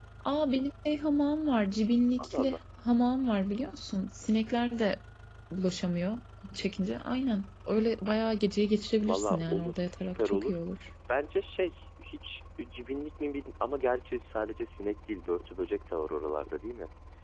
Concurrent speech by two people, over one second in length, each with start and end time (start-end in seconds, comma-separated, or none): 9.0-10.5